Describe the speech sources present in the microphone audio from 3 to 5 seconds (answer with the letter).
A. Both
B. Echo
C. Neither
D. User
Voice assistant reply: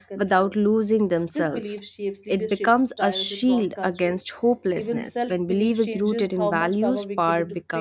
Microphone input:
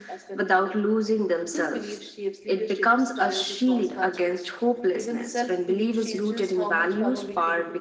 B